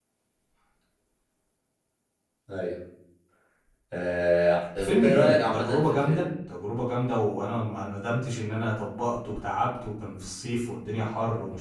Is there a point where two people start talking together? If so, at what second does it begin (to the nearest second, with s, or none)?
5 s